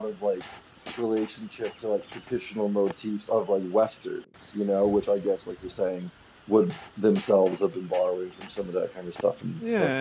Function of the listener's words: taking over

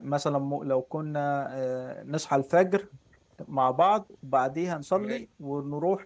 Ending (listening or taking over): listening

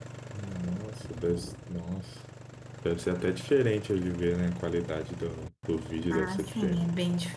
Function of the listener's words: taking over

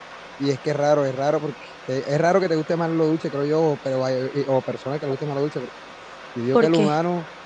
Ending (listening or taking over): listening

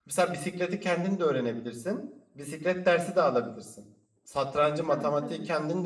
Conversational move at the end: listening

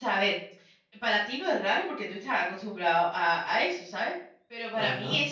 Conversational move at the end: listening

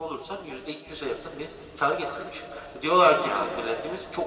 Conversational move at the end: listening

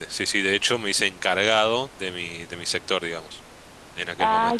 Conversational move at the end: taking over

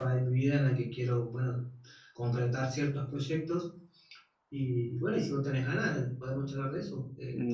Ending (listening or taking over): taking over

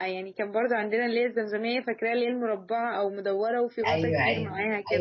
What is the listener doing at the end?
taking over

